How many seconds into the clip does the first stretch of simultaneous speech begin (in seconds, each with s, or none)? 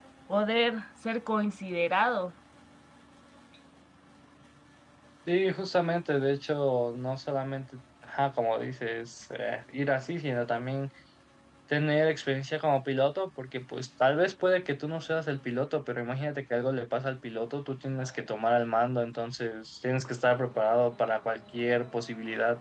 none